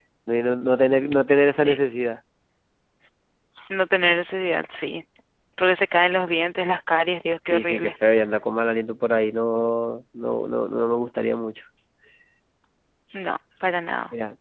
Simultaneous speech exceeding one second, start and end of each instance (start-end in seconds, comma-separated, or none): none